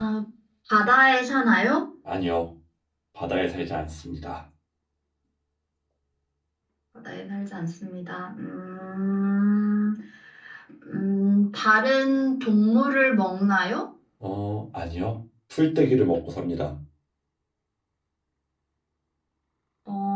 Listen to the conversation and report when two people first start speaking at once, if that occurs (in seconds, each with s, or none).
none